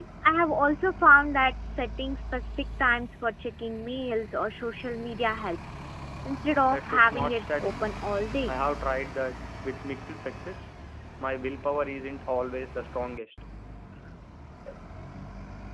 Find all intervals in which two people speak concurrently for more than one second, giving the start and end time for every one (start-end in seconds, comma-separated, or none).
6.6-8.0